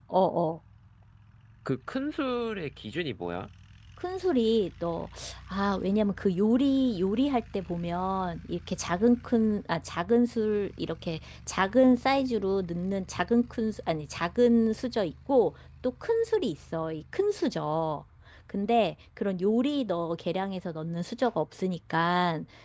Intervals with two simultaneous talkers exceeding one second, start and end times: none

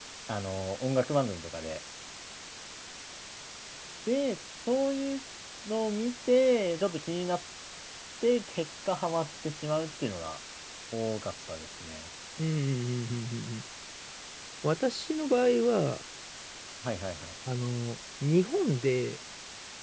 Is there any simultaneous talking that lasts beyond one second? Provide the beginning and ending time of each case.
none

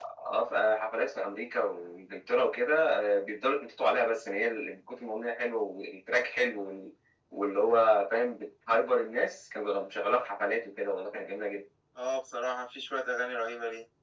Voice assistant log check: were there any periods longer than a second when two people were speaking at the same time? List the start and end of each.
none

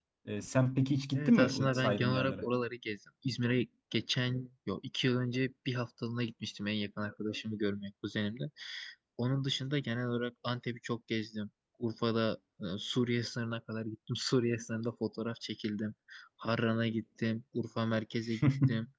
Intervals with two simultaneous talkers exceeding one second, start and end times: 1.1-2.4

